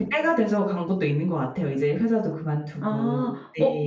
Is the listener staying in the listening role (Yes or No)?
No